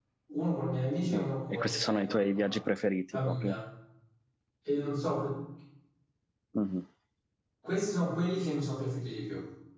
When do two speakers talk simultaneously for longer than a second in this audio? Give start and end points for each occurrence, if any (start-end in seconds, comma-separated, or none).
1.1-2.6